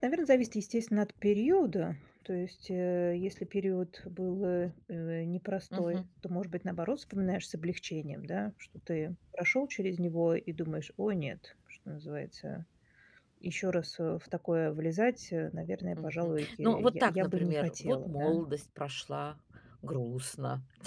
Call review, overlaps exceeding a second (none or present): present